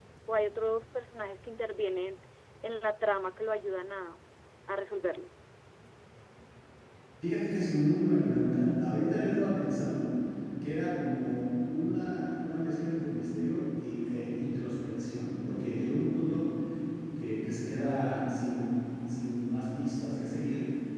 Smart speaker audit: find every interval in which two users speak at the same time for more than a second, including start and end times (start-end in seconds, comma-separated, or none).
none